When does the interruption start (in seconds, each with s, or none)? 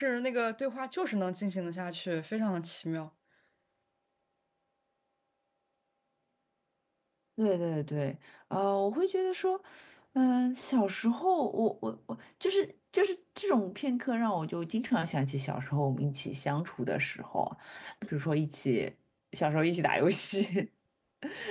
none